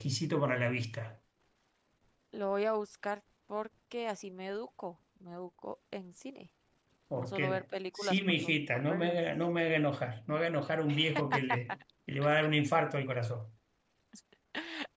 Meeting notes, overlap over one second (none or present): present